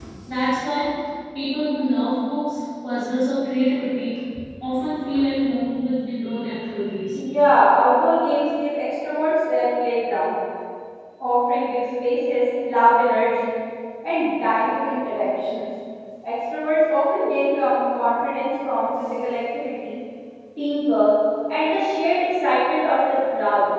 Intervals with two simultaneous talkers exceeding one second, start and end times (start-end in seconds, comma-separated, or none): none